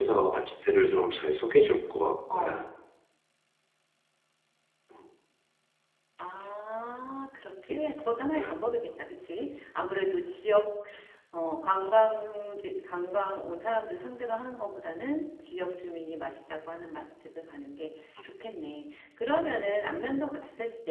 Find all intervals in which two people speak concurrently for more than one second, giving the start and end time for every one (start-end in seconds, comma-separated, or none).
none